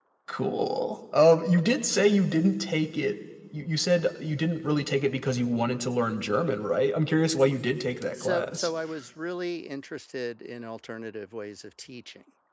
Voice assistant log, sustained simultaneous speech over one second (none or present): none